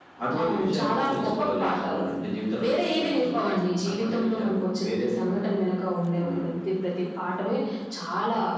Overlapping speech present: Yes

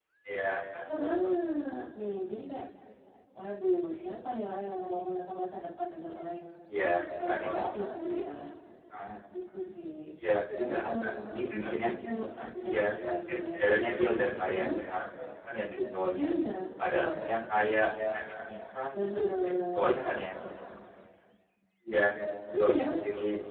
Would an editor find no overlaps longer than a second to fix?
No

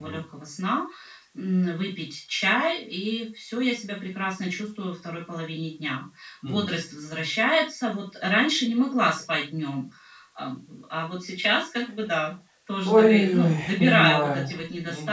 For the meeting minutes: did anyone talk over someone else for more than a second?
Yes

